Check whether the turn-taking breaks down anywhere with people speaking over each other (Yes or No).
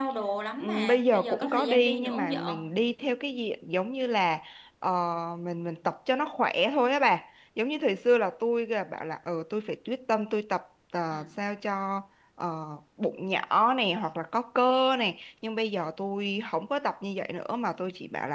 Yes